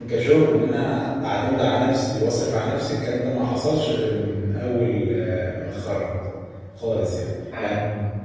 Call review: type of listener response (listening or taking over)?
taking over